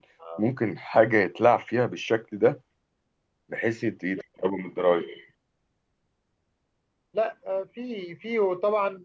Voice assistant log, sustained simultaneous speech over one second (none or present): none